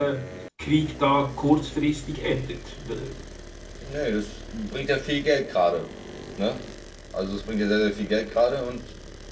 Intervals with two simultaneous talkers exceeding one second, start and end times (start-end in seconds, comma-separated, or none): none